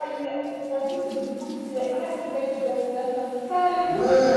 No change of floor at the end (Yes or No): No